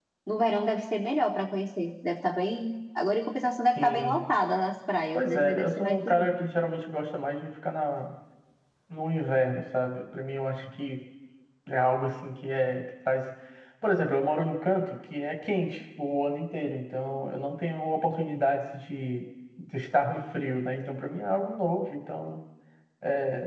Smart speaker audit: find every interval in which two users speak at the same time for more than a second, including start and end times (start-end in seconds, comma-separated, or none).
5.1-6.5